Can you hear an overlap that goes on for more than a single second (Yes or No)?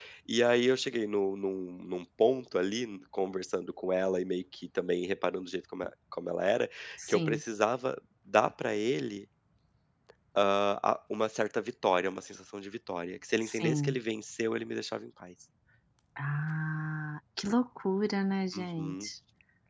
No